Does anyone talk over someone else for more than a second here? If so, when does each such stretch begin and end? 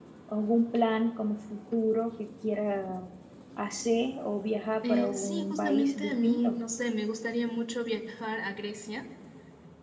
4.8-6.6

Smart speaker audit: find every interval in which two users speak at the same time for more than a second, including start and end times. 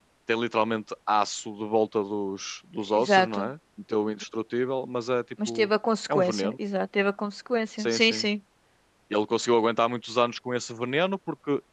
none

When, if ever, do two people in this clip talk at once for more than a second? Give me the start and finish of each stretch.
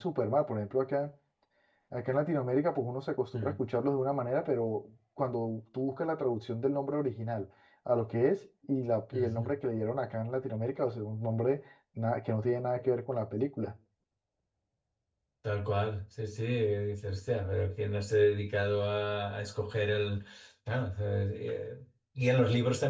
none

